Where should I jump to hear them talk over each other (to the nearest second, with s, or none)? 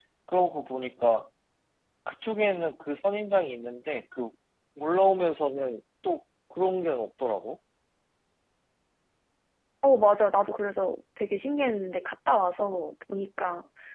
none